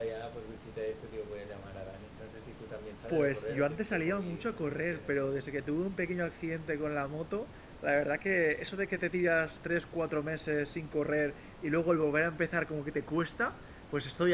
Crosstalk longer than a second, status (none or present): present